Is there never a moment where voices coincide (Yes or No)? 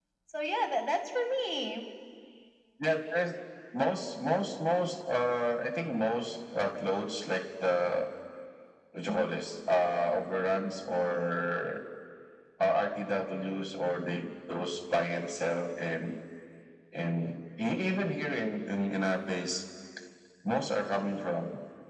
Yes